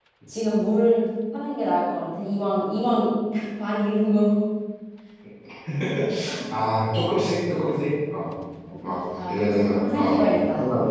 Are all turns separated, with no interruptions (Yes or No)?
No